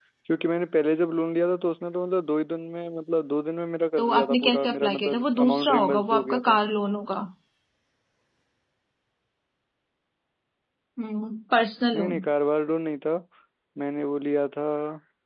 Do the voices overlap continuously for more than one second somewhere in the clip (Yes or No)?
Yes